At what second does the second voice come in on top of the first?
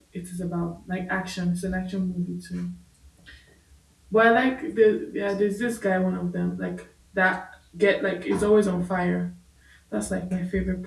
none

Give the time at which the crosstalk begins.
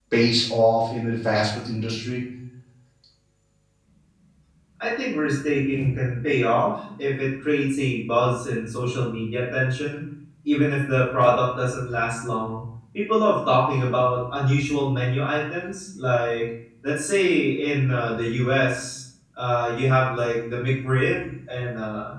none

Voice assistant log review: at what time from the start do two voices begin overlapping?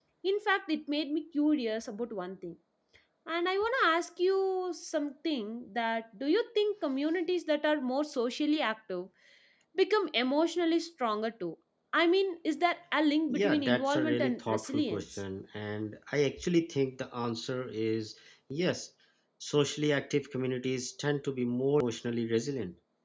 13.3 s

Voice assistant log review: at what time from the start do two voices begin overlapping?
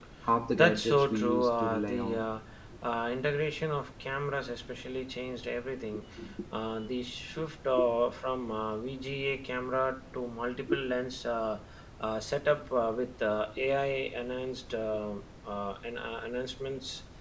0.5 s

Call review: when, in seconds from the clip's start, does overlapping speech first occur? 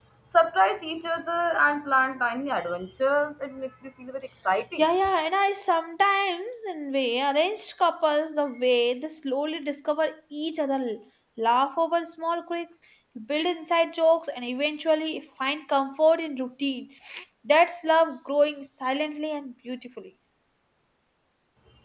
none

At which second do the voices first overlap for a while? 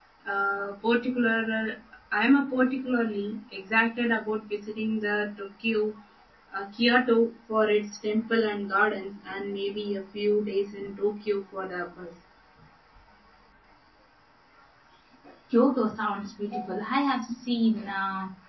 none

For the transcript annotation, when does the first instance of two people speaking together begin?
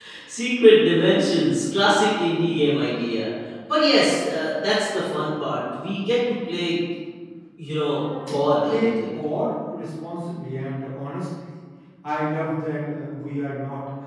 7.7 s

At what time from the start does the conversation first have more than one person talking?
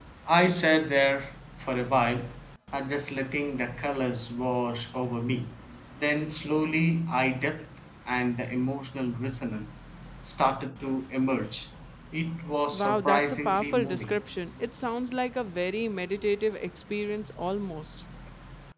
12.7 s

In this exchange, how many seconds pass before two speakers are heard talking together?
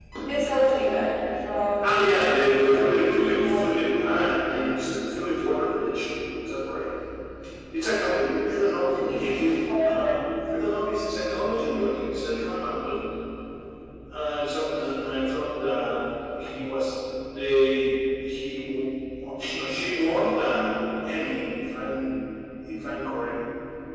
1.8 s

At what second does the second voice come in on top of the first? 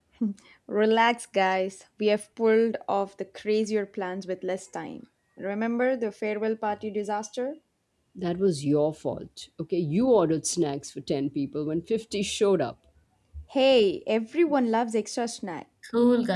none

